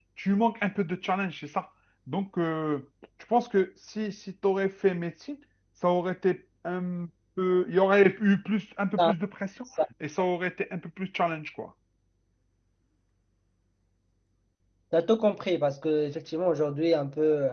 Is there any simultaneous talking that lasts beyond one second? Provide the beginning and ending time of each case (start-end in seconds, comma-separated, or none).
none